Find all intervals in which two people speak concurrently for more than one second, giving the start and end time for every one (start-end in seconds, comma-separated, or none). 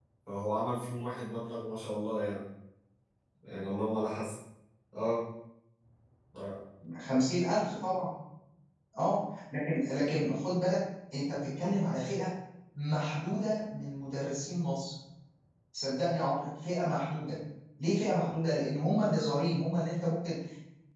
none